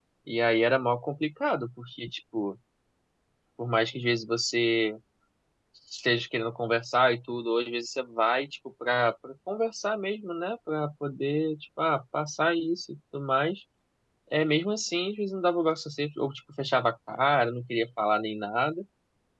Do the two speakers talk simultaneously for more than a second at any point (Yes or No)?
No